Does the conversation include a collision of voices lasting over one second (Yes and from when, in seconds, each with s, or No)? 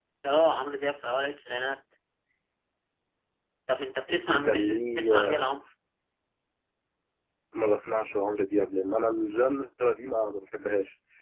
Yes, from 4.3 s